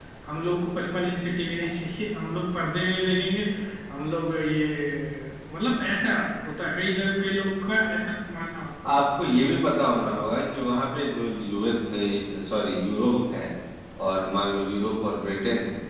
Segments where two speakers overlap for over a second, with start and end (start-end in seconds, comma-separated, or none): none